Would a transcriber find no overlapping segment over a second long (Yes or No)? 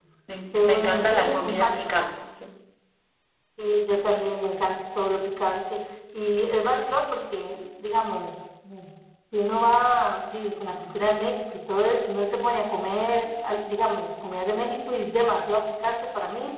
No